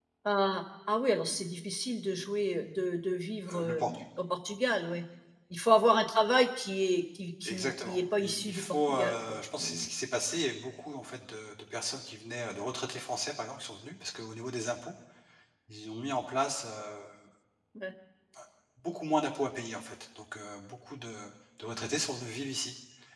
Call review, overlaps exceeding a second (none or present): present